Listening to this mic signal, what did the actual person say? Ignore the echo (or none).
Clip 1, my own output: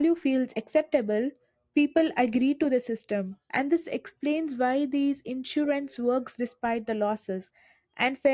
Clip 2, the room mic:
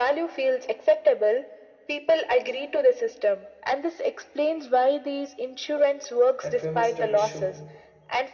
A famous study showed